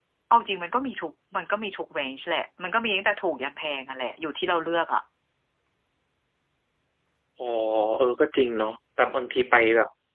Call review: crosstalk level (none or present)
none